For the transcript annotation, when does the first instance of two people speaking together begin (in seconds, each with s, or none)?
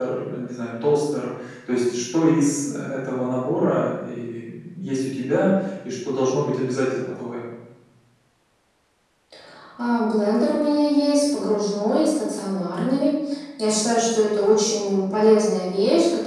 none